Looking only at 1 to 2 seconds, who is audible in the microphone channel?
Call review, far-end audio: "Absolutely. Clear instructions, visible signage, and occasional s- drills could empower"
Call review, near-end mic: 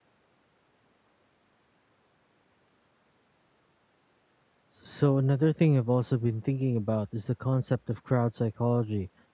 neither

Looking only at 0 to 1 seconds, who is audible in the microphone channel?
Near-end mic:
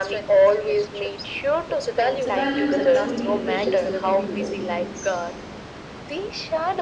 echo only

